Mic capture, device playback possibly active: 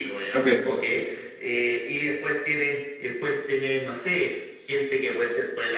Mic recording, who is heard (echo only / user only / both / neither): both